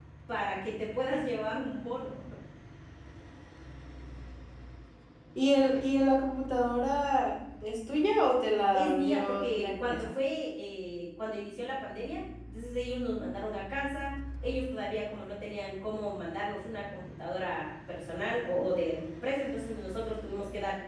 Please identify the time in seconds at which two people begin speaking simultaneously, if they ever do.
8.7 s

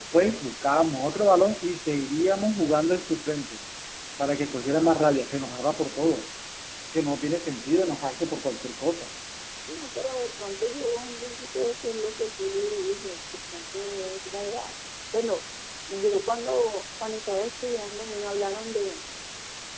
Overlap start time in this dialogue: none

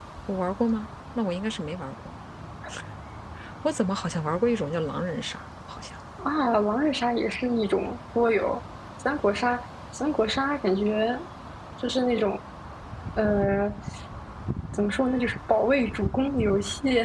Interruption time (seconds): none

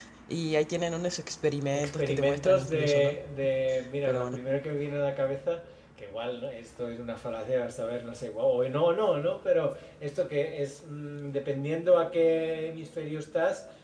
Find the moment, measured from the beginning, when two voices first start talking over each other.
1.7 s

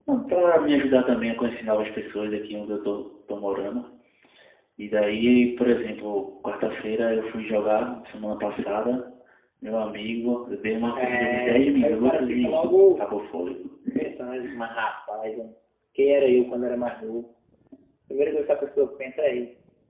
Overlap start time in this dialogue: 10.9 s

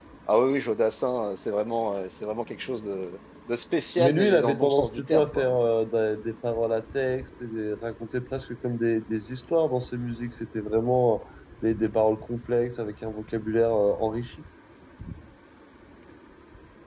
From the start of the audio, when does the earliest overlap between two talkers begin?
4.0 s

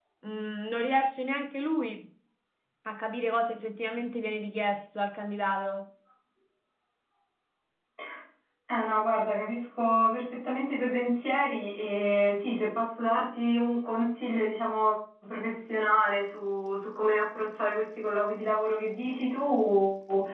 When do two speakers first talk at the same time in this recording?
none

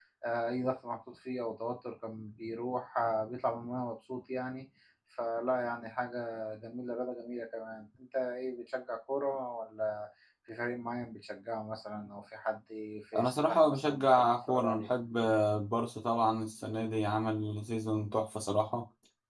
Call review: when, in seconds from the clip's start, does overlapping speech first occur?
13.1 s

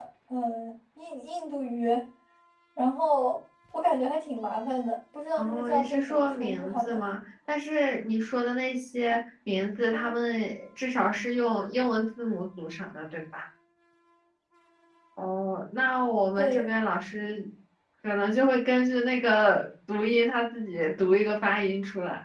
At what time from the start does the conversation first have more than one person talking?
5.4 s

